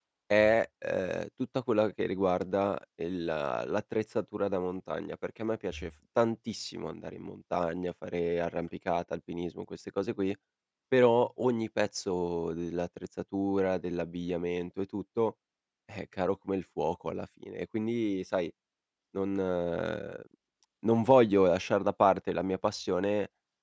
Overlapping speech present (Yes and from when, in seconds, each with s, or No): No